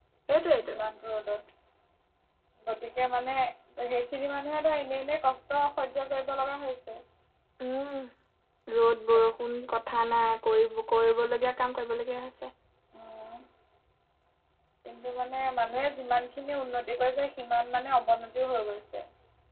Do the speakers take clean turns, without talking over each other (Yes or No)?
Yes